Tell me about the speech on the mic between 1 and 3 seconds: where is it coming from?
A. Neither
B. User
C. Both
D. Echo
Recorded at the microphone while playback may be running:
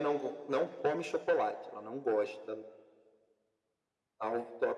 D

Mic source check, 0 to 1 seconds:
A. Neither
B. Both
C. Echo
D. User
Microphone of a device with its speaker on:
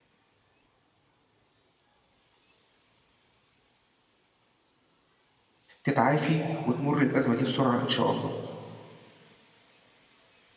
A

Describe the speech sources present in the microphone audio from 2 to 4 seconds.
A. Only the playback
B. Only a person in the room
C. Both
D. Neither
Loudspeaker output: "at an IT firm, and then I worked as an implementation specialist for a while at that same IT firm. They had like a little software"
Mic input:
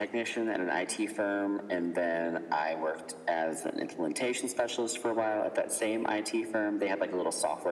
A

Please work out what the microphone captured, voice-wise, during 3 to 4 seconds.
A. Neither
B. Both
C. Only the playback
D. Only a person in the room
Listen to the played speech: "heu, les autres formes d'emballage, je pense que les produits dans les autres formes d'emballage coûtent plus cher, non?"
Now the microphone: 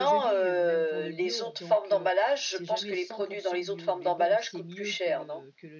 B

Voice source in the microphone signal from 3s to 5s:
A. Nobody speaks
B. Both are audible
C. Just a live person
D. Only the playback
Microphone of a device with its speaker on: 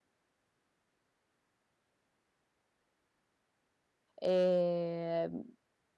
C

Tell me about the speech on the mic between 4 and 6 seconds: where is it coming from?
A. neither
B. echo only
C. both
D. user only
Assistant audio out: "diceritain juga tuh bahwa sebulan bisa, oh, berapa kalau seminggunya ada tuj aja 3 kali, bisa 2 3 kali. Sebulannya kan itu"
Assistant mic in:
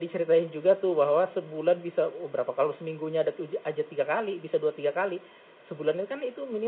B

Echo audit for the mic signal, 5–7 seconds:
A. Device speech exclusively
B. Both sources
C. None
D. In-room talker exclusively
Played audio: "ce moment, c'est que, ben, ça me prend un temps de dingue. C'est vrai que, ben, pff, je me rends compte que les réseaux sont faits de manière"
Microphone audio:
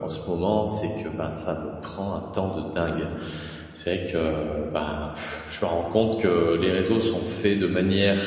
A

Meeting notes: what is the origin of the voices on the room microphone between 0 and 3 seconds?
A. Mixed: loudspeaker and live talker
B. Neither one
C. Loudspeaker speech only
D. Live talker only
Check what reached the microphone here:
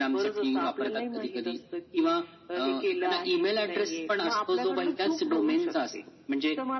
C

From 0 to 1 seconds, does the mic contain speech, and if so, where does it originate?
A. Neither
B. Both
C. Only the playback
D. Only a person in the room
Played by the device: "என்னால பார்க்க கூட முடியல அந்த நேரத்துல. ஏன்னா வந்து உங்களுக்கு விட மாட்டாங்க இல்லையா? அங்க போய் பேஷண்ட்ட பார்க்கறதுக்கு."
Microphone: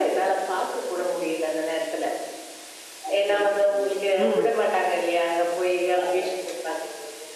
C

